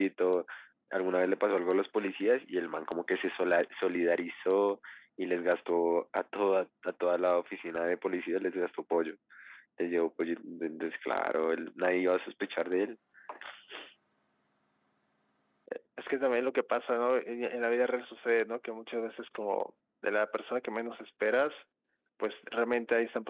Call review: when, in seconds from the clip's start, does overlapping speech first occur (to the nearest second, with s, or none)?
none